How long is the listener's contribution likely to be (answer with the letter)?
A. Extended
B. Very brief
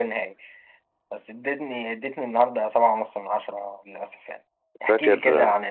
B